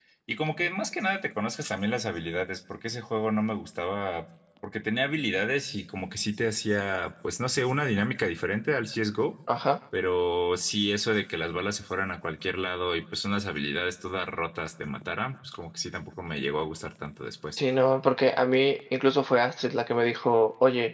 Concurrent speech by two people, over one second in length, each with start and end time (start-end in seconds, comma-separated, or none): none